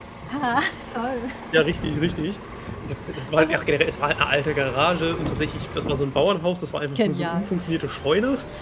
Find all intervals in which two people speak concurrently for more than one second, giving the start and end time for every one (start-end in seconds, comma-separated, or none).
none